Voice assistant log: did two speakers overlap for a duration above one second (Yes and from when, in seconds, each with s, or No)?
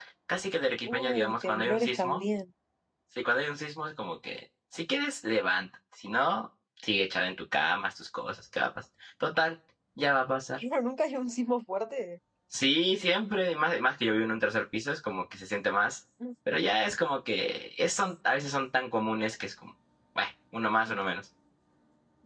Yes, from 0.9 s